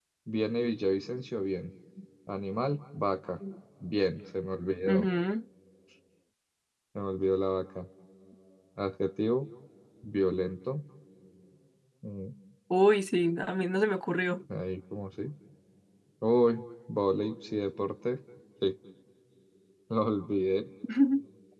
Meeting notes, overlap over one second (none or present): none